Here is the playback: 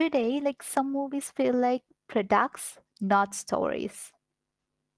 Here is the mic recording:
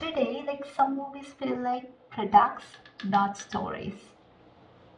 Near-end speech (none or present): none